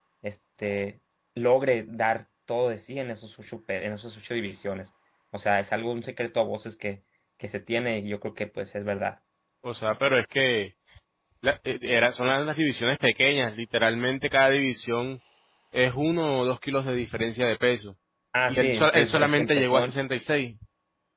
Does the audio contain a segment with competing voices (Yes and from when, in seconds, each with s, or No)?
Yes, from 18.5 s